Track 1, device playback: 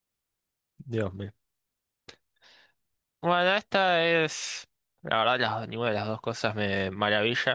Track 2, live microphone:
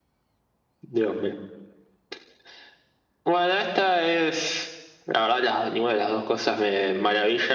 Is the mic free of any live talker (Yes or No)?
Yes